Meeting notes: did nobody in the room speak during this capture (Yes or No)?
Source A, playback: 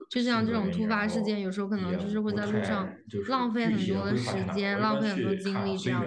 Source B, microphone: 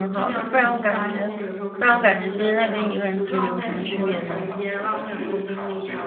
No